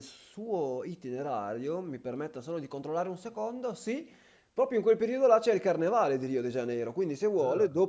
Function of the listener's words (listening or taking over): listening